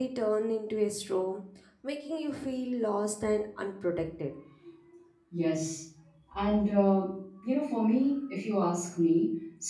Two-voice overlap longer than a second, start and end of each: none

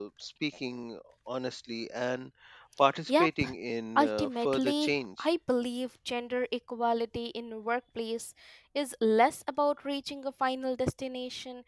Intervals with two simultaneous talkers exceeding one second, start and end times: 4.0-5.3

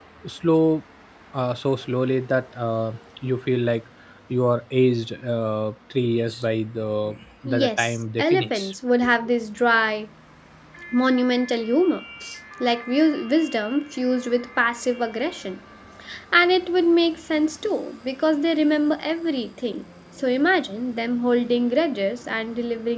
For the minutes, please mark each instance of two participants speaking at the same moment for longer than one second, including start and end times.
7.5-8.7

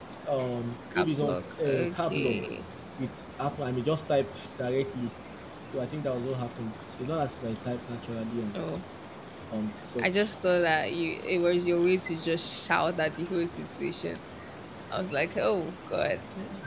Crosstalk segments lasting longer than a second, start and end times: 0.9-2.5

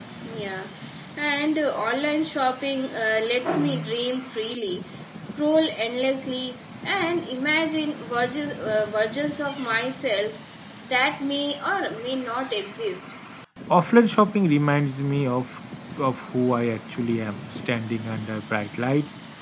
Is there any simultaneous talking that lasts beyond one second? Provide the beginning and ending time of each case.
none

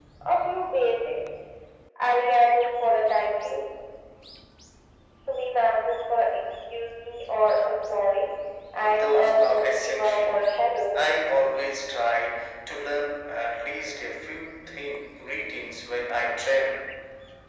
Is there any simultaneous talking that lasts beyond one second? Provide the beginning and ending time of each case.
8.8-10.3

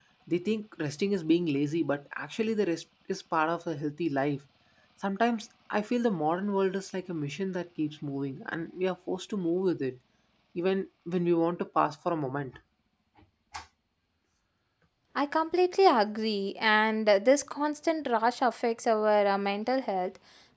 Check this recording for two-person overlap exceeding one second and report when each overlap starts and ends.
none

